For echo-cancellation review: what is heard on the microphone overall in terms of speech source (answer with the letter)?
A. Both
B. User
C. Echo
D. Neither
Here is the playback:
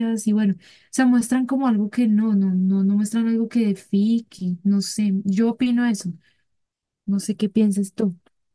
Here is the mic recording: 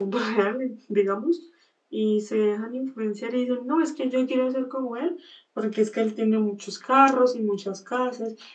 B